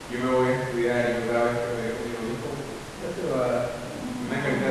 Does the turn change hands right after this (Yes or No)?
No